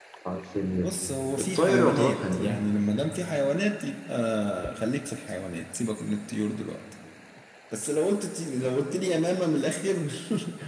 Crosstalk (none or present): present